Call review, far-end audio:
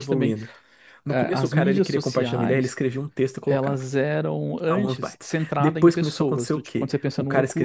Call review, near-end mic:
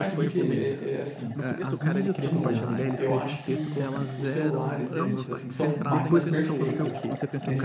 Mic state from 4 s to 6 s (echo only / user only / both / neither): both